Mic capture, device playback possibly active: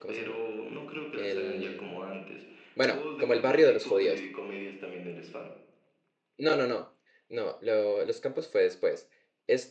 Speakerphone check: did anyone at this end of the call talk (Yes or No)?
Yes